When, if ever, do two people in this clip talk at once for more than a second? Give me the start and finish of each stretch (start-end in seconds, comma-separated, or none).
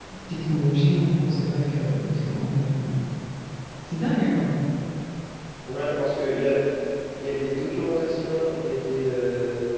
none